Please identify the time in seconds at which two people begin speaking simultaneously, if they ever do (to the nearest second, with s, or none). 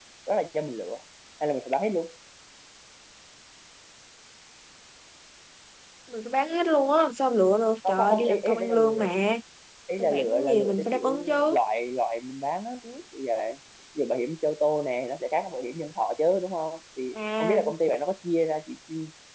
8 s